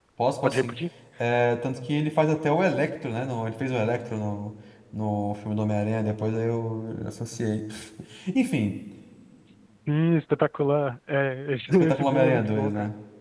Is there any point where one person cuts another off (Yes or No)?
Yes